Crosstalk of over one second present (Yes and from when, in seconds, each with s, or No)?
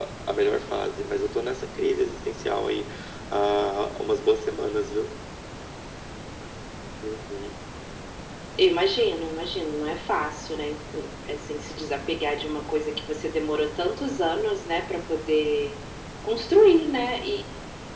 No